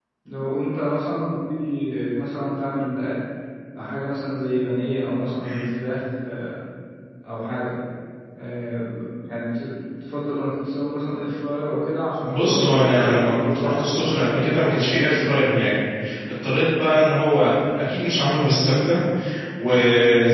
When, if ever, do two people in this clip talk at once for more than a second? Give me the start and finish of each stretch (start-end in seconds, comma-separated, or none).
12.2-14.4